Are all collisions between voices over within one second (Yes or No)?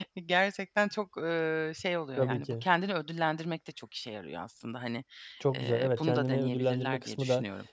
No